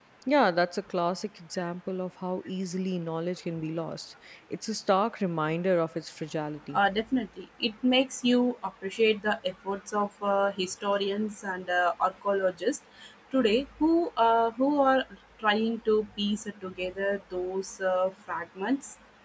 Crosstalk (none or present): none